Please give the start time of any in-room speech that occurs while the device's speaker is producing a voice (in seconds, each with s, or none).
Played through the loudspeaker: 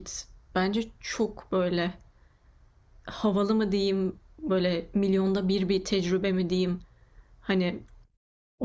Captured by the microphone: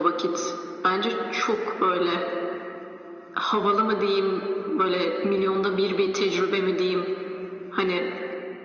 none